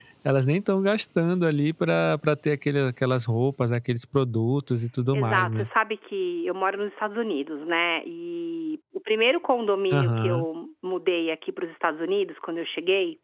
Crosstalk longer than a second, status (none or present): none